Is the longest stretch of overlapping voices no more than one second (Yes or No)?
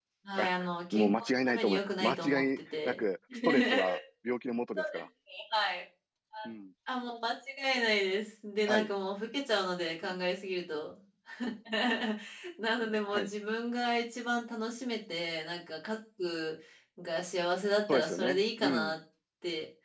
No